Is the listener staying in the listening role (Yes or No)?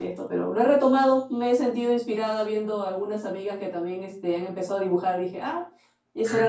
No